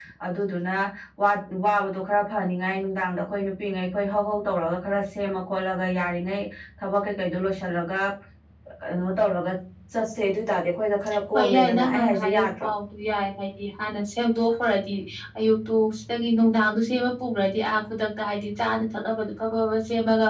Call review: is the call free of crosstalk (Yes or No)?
No